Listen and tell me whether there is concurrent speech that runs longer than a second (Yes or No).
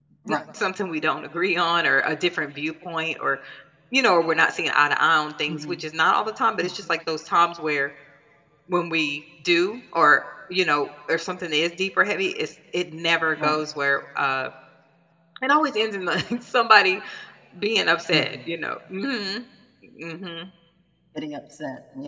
No